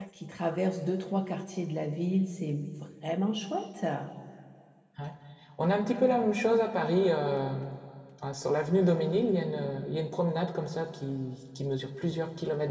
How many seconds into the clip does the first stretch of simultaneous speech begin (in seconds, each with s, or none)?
none